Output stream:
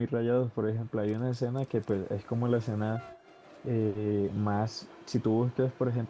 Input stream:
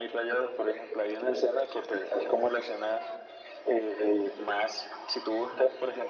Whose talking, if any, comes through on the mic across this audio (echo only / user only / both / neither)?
echo only